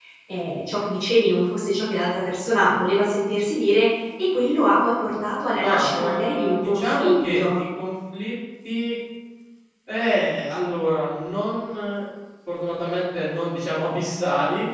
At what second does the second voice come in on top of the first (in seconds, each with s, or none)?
5.6 s